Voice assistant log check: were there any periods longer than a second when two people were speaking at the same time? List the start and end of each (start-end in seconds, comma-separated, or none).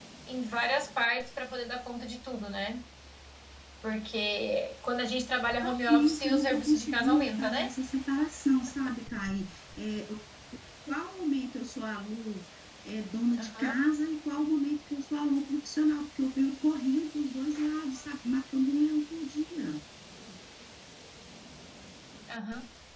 5.6-7.7